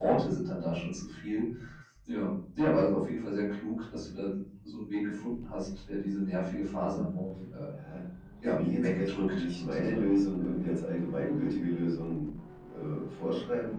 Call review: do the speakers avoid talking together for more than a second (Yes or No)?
No